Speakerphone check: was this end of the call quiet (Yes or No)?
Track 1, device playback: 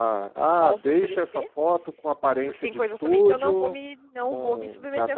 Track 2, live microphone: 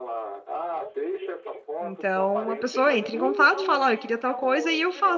No